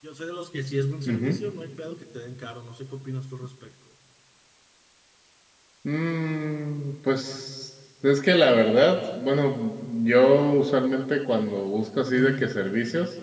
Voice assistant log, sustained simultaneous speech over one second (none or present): none